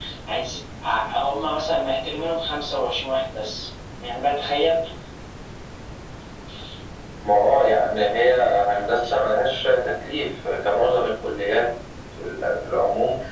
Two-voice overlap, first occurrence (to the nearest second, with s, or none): none